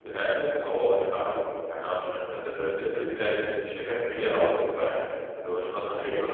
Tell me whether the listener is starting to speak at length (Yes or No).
Yes